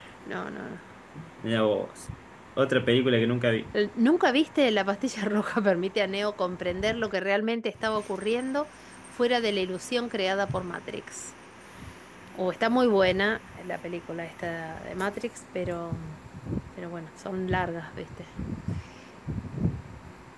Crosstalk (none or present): none